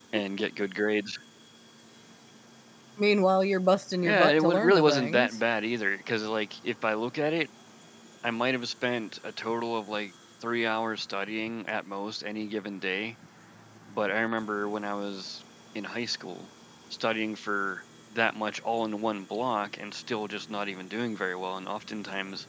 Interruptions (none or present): present